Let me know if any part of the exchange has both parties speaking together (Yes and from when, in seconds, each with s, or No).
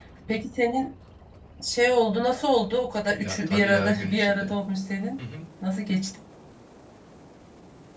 Yes, from 3.2 s